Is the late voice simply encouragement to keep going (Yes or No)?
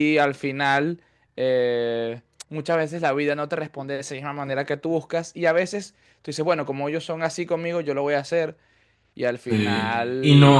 No